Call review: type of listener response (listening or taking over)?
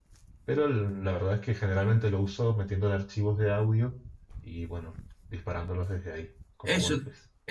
taking over